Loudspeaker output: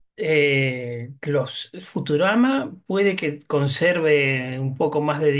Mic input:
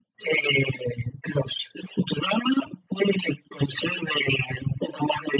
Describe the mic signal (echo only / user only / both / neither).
echo only